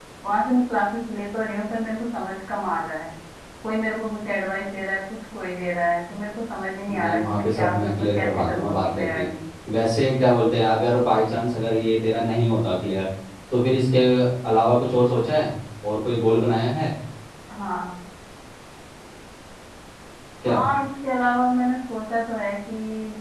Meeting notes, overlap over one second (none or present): present